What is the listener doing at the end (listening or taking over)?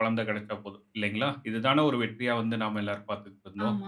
taking over